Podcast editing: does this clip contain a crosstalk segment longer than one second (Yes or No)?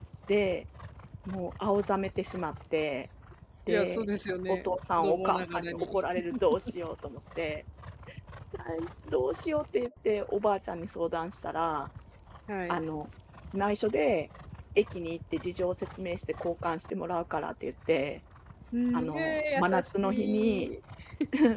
Yes